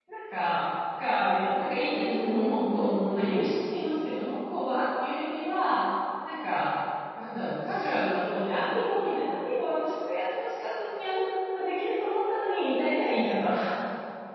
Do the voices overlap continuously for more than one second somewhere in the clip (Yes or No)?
Yes